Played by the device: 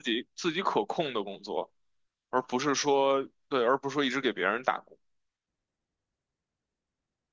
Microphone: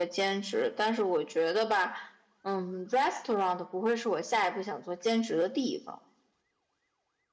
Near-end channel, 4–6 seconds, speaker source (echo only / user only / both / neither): user only